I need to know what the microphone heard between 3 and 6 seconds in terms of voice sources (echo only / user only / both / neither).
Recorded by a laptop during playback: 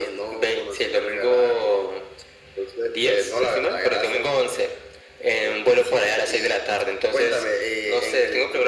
echo only